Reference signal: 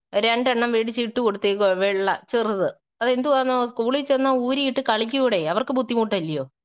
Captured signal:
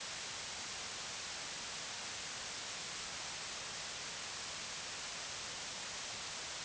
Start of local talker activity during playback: none

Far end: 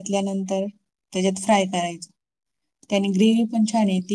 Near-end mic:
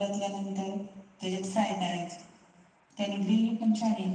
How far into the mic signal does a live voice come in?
none

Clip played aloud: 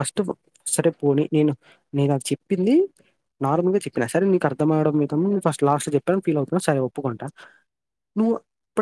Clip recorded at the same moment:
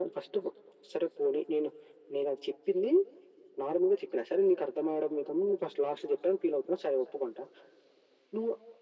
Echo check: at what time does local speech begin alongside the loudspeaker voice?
none

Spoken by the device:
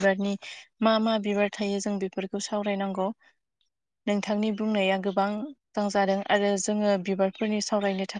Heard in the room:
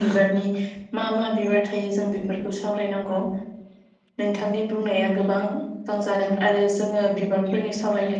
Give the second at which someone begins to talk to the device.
none

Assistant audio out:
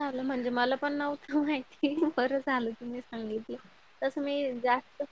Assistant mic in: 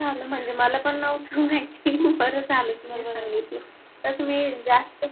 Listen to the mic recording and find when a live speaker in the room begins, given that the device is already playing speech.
3 s

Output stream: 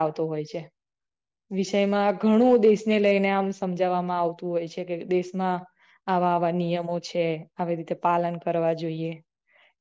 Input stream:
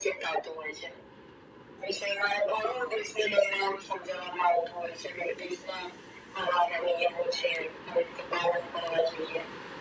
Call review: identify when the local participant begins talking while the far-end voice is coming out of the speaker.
none

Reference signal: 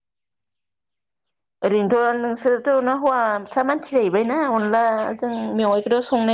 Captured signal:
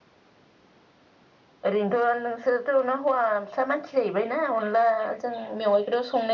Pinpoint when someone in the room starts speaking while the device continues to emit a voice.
none

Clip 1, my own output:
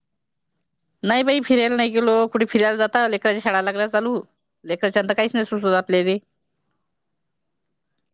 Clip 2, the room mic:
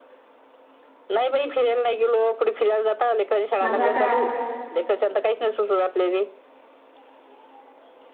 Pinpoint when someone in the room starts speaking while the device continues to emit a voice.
4 s

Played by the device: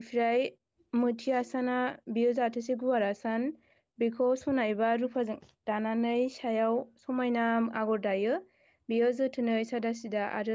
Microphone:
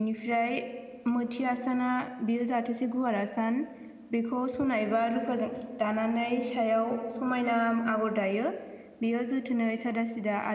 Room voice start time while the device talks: none

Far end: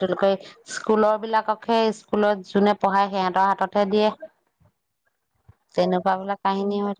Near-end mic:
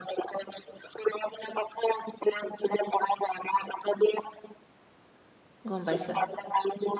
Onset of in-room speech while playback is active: 6 s

